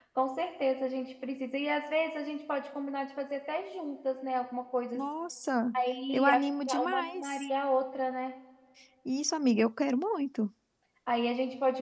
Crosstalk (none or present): present